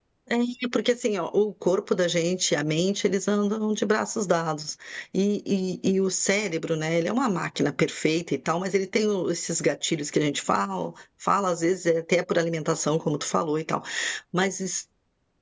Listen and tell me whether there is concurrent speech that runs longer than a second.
No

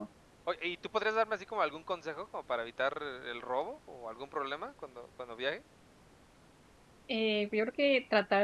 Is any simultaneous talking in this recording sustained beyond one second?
No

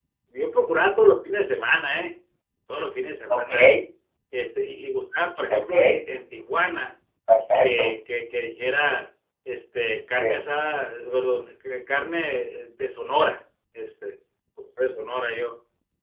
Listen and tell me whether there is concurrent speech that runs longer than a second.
No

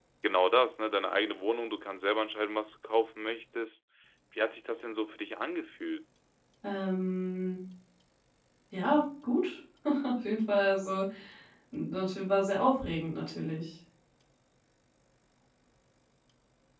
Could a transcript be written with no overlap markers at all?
Yes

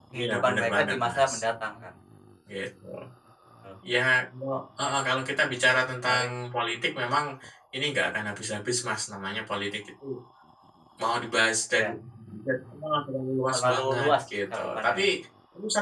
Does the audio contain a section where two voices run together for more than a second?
Yes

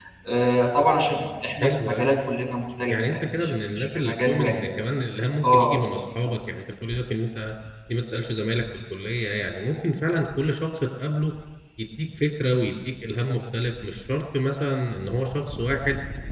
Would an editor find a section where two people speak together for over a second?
Yes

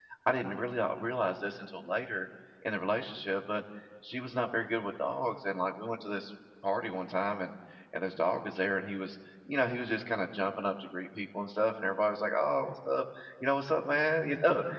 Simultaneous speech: No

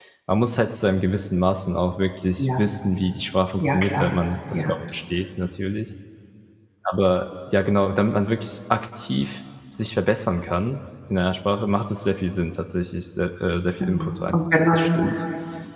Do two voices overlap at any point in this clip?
Yes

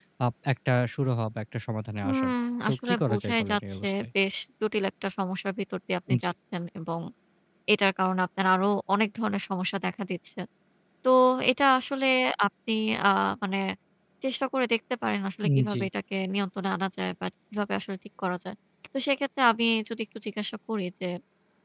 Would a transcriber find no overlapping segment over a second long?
No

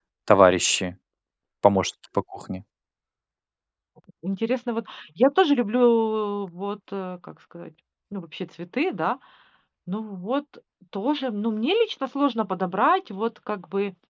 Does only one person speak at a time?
Yes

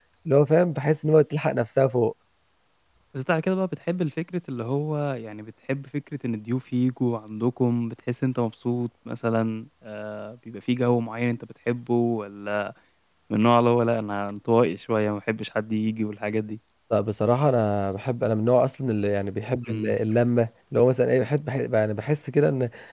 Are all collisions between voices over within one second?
Yes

